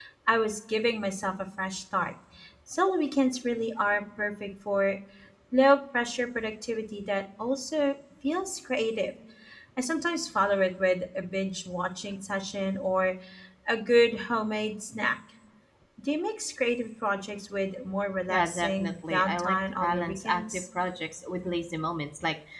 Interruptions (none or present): present